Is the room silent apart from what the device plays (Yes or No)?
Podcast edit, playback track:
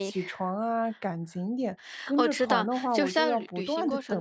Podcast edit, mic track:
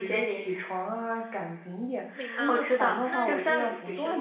No